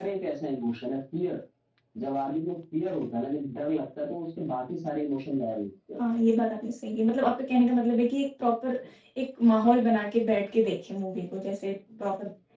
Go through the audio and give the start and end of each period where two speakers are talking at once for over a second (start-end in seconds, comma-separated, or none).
none